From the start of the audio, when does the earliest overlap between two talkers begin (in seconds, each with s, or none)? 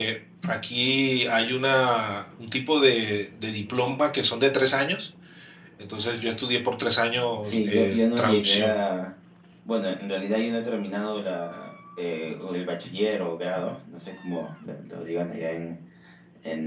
7.4 s